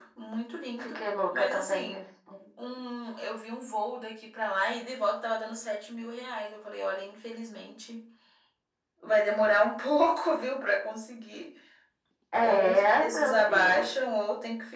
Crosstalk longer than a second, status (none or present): present